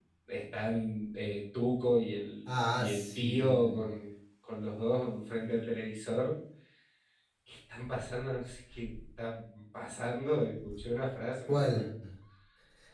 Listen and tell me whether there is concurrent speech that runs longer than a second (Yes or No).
Yes